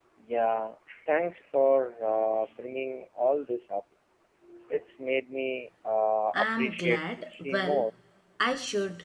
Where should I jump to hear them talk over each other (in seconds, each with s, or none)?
6.3 s